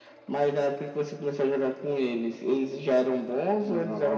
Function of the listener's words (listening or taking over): taking over